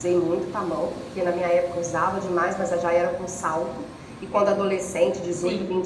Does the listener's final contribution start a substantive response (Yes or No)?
No